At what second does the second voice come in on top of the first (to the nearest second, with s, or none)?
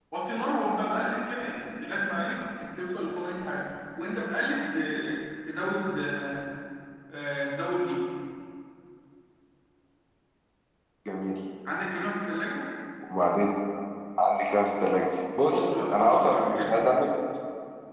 16 s